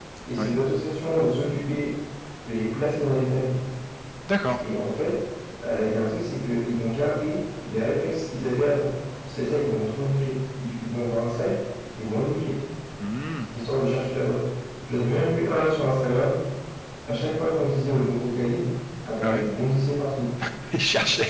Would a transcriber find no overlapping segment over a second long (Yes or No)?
Yes